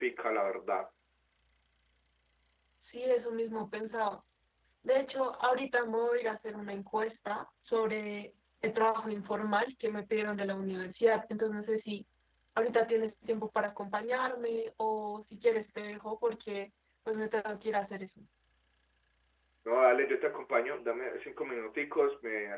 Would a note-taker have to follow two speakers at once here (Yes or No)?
No